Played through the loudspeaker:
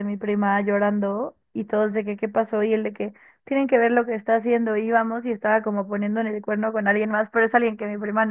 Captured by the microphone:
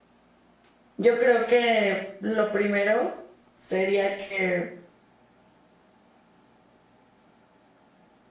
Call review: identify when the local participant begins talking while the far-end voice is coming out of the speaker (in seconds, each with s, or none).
1.0 s